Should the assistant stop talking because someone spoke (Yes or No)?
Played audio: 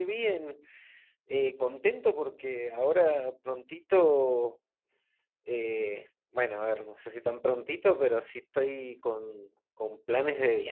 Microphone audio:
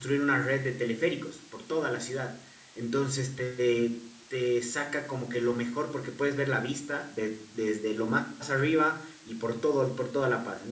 Yes